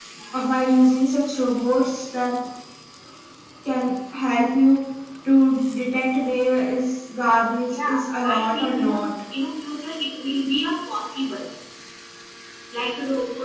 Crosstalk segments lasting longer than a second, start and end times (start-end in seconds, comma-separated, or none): 7.7-9.1